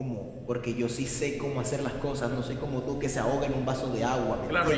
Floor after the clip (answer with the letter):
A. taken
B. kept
A